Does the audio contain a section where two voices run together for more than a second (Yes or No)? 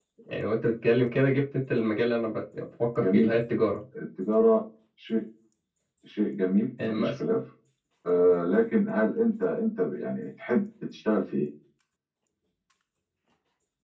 No